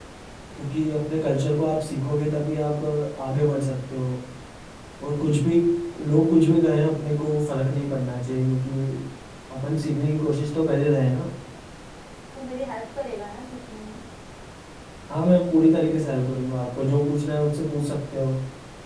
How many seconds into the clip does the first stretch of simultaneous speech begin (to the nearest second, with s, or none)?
none